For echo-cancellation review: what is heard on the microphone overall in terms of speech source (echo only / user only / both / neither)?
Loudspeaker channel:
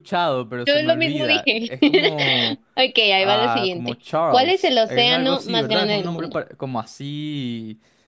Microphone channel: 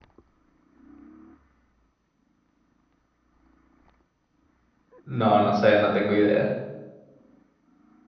user only